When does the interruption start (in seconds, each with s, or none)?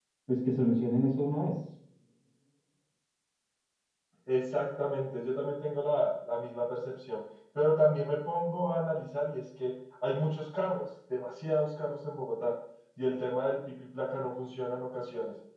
none